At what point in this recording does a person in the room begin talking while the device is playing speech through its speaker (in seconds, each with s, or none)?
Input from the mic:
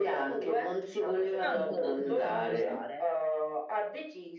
1.4 s